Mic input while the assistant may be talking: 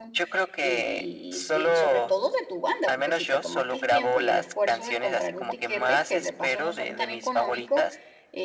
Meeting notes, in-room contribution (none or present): present